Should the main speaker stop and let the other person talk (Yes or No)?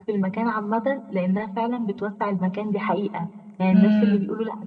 No